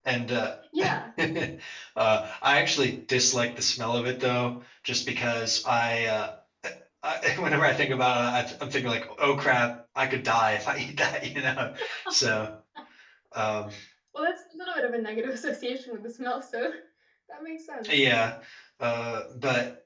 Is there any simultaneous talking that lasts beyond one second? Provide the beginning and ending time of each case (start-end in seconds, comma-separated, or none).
none